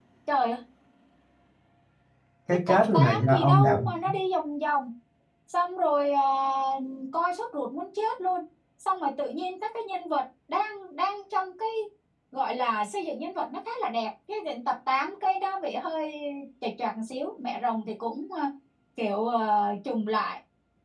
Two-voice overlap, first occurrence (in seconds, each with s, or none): 2.7 s